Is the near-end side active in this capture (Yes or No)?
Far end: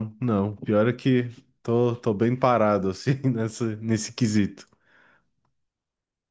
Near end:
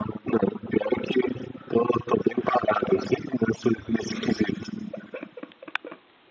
No